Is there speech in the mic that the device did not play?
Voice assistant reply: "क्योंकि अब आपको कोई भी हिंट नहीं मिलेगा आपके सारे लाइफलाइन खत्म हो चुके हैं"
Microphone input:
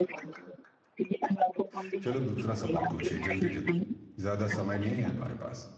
Yes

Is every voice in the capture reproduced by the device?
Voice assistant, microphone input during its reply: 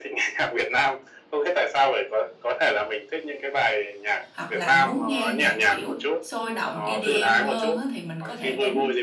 No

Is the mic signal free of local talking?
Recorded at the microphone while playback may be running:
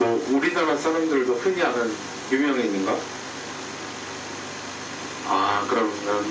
Yes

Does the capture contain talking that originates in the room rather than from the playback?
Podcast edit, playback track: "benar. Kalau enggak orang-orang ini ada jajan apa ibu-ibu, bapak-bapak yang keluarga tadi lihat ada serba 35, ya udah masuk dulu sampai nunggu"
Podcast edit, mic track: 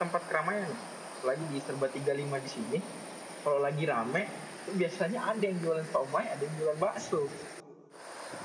Yes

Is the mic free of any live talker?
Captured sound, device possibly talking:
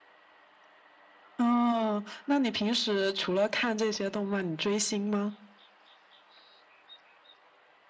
Yes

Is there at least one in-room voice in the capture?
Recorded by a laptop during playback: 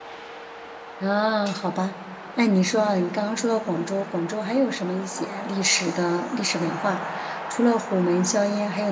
Yes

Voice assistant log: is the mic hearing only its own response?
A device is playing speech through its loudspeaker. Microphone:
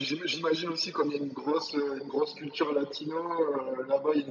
Yes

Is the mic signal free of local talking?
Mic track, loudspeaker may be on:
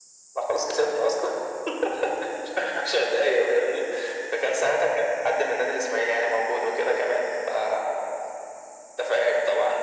Yes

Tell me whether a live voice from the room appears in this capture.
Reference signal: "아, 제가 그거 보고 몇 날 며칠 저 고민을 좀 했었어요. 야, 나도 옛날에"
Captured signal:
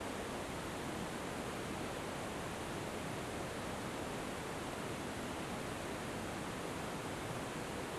No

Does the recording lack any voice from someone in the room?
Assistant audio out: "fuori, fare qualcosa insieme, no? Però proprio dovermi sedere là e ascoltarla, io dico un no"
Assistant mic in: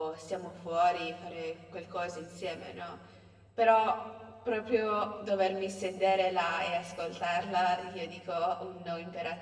Yes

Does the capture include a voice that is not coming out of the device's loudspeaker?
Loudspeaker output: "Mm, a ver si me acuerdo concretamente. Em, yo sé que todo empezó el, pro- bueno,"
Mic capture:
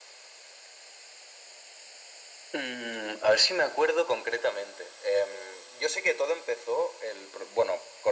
No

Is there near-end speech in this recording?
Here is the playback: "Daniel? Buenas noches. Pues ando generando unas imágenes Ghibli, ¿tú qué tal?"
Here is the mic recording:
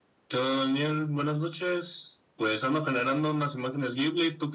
No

